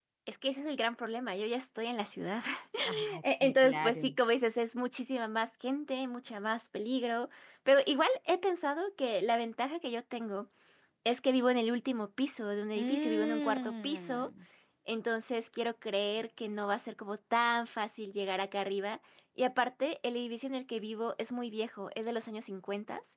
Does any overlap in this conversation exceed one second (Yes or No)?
Yes